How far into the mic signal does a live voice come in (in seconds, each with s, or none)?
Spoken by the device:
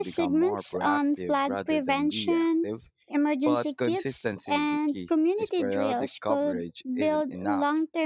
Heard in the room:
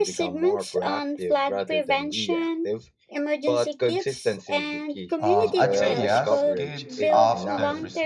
5.2 s